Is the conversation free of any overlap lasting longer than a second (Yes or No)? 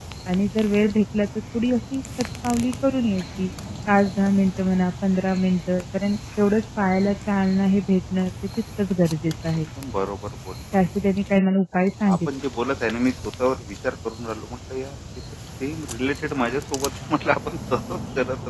Yes